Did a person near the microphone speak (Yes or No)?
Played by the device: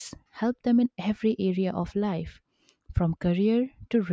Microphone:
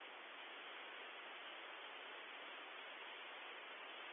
No